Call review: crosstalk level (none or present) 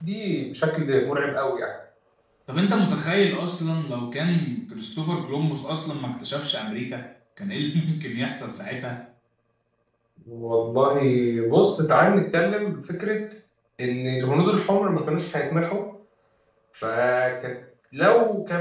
none